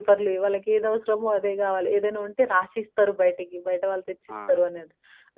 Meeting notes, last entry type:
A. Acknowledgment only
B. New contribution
A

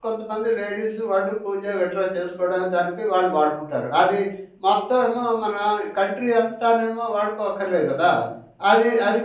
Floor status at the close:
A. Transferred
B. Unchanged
B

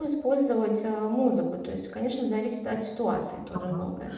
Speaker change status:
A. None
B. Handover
B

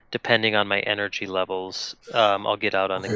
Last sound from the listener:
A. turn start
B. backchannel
A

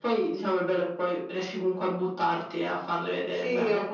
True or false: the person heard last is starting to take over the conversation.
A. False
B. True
B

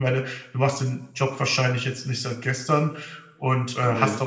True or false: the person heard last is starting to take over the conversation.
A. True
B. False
B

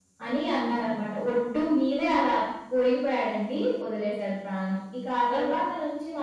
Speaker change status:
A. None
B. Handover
A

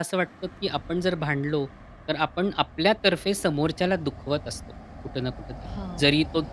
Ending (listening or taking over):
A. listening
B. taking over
A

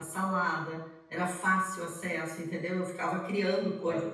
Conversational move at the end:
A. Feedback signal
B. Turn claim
A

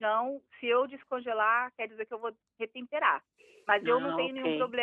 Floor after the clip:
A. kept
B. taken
A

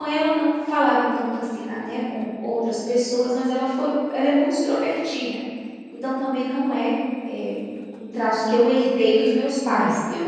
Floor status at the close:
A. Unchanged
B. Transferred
A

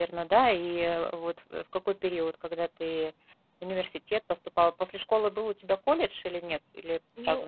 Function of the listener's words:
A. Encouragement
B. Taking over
B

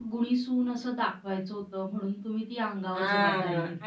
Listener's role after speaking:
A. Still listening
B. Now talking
B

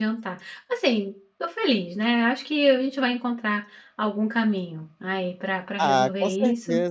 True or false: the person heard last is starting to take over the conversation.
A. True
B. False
A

